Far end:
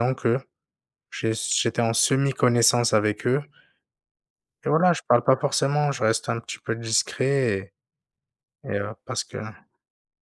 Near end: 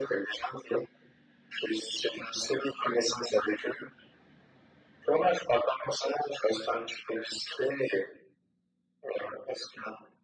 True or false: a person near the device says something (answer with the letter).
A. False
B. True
A